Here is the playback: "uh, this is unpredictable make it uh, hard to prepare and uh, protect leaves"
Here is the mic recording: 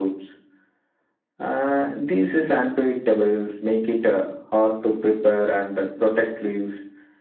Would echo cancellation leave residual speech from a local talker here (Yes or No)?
No